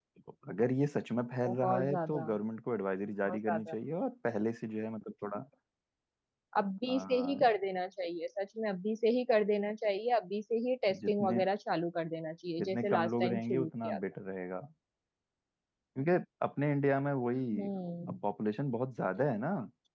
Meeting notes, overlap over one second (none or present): present